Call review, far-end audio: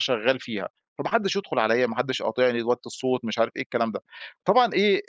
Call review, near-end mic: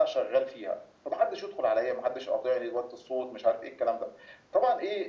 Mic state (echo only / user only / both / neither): echo only